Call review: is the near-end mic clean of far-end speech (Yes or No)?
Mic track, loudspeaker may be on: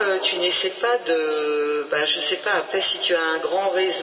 No